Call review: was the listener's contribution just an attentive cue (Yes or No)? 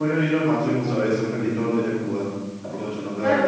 No